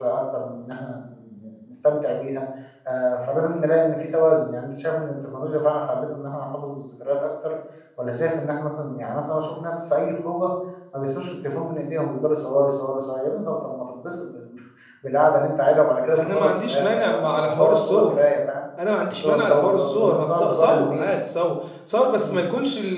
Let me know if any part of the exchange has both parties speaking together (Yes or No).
Yes